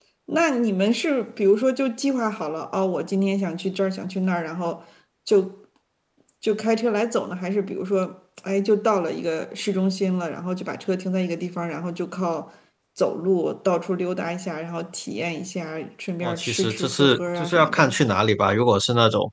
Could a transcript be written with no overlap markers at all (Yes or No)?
No